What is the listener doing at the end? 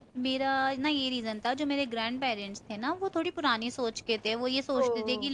listening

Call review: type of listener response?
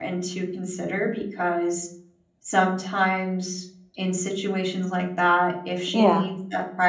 listening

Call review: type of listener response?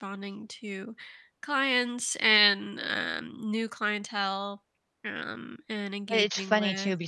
taking over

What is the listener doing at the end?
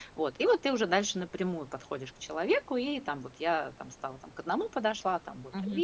taking over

